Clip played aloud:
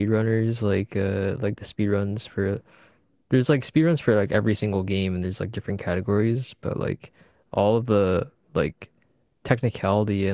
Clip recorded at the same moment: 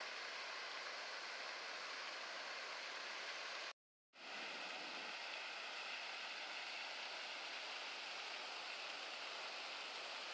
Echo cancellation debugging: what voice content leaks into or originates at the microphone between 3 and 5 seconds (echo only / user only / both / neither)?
neither